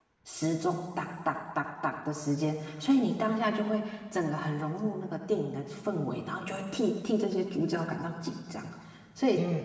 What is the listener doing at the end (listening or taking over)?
taking over